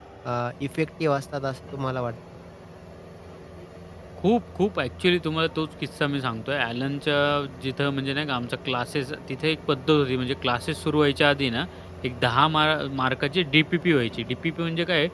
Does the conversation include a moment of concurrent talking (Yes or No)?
No